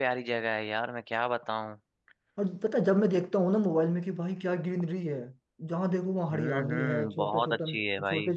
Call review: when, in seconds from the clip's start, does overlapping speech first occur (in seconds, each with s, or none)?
6.3 s